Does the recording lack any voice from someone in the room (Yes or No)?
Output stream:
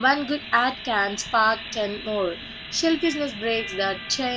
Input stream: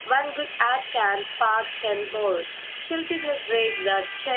Yes